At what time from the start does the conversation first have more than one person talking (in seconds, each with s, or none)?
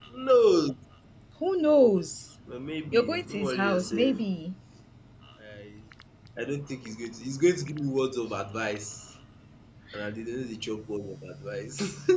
2.9 s